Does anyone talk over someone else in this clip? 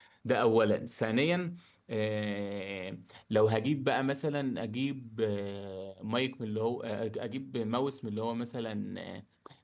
No

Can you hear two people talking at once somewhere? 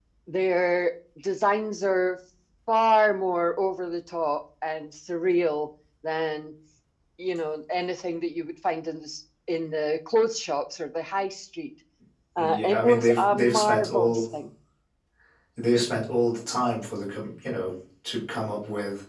Yes, from 12.4 s

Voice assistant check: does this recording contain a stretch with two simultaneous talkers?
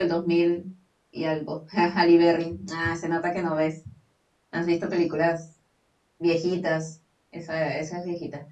No

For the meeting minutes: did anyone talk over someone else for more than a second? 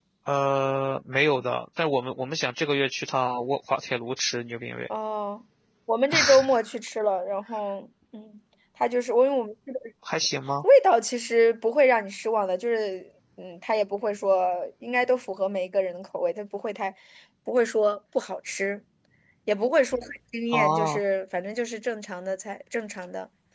No

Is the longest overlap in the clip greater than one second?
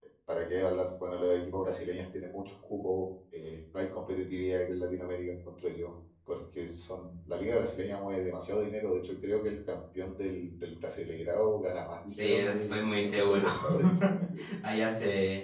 Yes, from 12.2 s

